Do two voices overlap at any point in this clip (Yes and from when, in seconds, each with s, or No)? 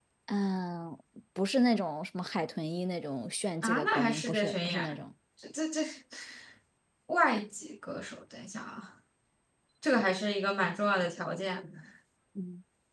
Yes, from 3.6 s